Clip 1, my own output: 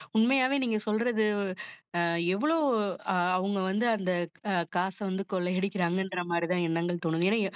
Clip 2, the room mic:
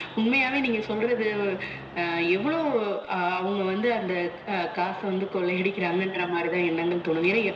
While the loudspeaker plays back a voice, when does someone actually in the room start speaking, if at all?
none

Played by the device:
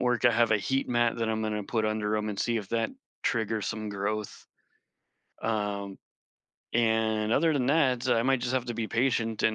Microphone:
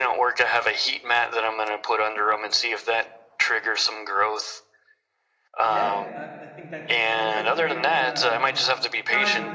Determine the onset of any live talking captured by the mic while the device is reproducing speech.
6 s

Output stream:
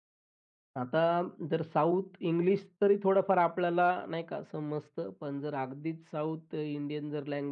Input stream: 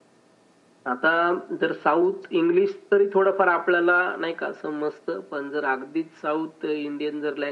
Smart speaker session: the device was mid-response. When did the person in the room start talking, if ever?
none

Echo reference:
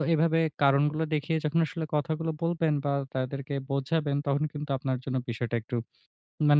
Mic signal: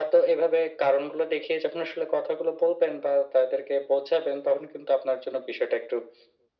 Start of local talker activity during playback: none

